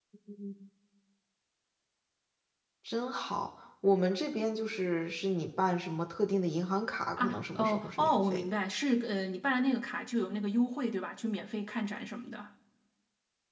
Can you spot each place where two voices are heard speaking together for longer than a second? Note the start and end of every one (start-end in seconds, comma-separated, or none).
7.2-8.5